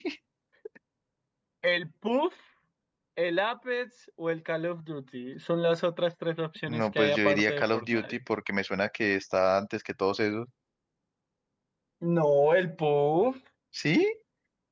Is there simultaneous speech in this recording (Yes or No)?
Yes